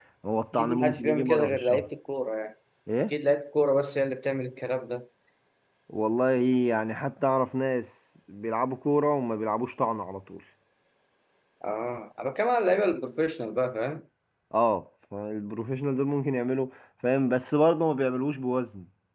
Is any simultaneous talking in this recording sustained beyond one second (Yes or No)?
Yes